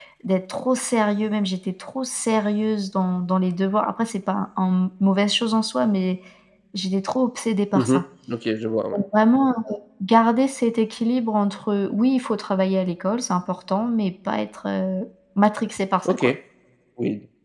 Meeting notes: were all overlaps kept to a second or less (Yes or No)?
Yes